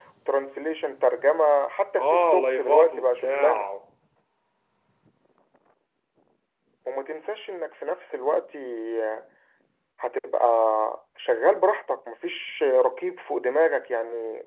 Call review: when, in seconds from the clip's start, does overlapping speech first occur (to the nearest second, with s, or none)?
2 s